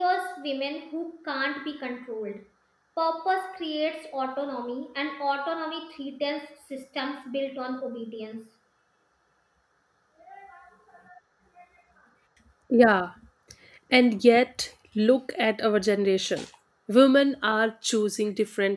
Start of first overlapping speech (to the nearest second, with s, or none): none